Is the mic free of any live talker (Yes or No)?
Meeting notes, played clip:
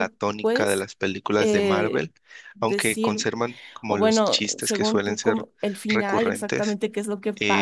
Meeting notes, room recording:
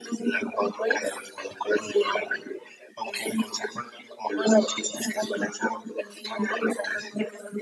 Yes